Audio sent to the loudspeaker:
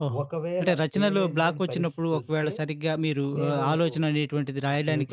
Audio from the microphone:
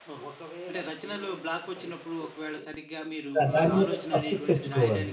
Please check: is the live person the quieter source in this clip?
No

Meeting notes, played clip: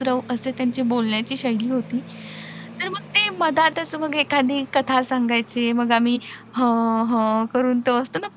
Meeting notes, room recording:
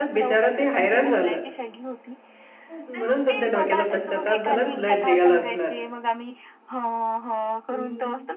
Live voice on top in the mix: Yes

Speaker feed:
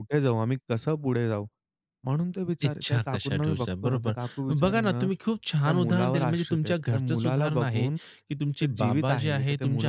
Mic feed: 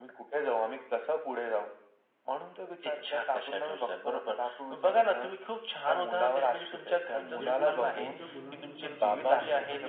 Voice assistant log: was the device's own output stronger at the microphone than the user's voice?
Yes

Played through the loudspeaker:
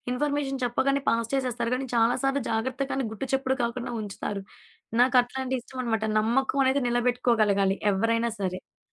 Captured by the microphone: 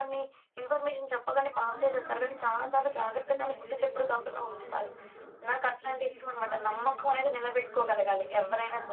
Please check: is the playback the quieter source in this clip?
No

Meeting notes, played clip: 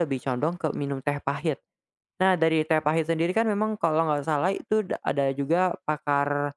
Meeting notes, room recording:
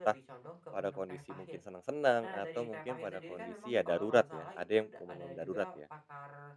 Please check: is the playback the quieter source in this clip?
Yes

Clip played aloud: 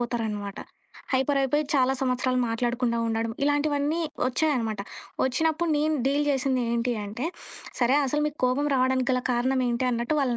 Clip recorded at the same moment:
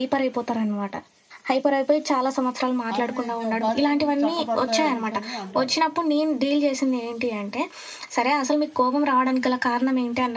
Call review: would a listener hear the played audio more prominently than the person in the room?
Yes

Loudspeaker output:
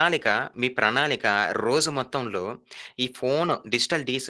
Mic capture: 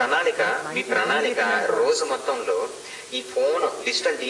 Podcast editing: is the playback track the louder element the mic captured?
Yes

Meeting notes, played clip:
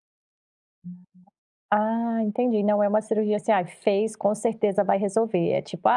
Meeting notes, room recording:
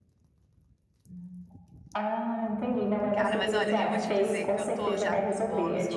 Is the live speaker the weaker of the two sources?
Yes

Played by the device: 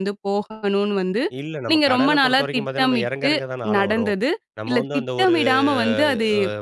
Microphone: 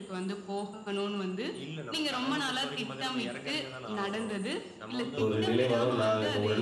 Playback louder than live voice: No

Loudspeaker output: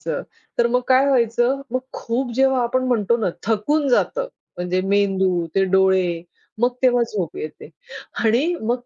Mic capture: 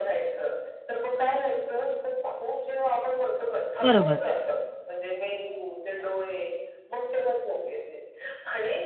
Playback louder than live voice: No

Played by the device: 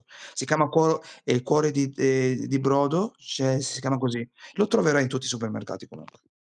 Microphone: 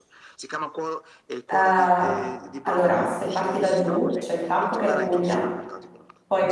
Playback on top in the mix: No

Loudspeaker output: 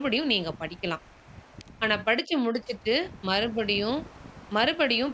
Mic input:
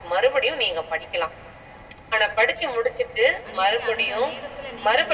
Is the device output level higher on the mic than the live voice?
Yes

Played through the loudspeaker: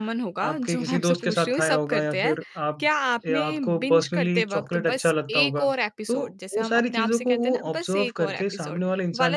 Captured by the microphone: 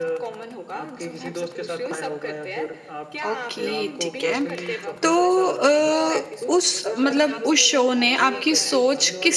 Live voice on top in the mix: Yes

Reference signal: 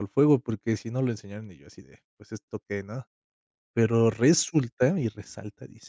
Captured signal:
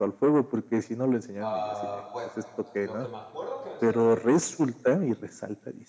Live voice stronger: No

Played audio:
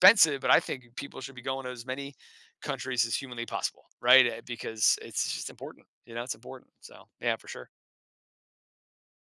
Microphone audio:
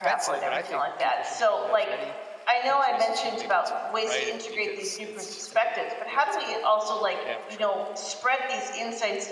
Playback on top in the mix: No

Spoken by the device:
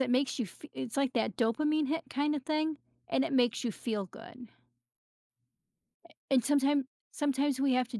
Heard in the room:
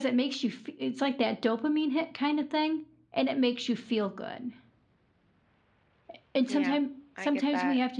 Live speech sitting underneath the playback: Yes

